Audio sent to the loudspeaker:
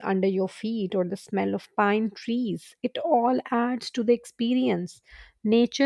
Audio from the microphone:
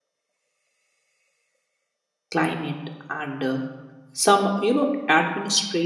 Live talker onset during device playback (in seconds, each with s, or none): 2.4 s